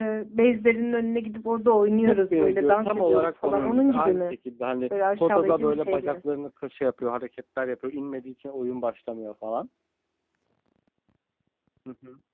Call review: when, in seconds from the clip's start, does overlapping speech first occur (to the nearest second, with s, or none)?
2 s